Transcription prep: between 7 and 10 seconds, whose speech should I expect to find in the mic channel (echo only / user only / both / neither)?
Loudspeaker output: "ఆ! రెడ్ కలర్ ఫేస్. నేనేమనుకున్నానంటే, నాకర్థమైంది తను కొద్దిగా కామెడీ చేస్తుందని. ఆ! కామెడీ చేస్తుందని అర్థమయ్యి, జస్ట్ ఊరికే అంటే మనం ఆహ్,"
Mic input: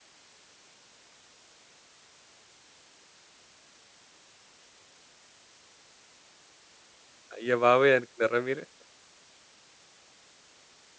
user only